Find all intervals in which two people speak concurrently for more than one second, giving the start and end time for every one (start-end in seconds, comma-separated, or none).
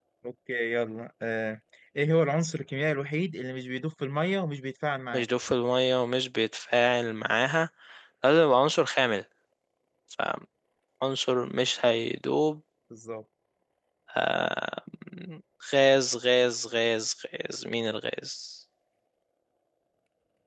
none